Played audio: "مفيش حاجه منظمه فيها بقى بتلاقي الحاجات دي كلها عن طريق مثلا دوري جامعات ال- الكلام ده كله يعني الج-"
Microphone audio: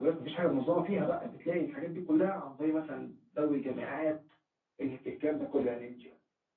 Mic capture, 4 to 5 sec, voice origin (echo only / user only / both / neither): echo only